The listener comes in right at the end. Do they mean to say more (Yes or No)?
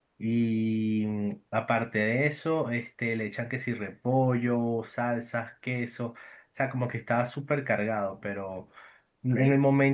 No